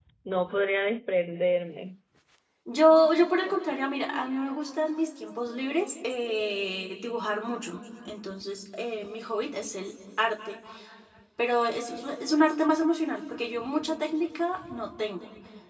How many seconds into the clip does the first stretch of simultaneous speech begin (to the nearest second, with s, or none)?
none